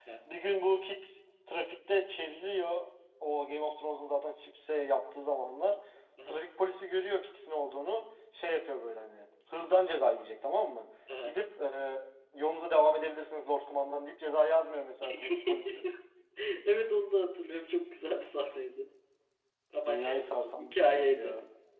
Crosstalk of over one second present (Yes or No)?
Yes